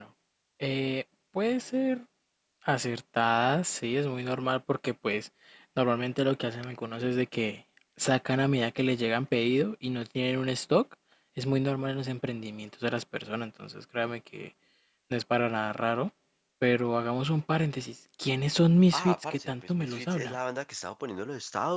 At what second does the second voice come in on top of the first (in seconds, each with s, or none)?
18.9 s